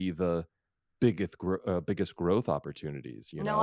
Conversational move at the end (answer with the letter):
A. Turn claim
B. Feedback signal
A